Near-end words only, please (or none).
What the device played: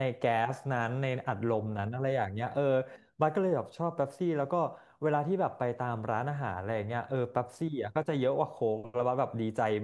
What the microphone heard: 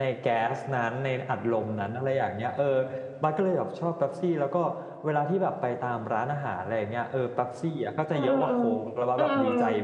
เออเออเออเออ